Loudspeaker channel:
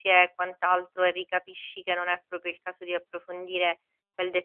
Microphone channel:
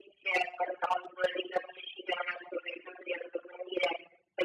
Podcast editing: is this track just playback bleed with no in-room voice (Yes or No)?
Yes